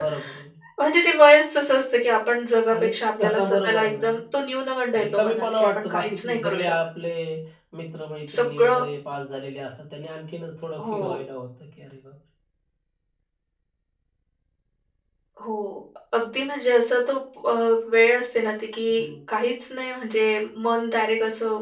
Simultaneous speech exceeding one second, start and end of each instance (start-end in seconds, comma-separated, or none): 2.8-4.0, 5.0-6.7